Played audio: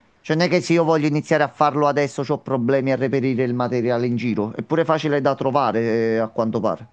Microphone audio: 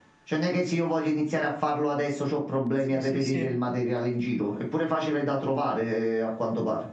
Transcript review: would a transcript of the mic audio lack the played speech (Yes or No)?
No